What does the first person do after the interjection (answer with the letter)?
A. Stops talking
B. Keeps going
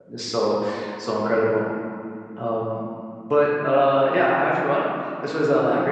B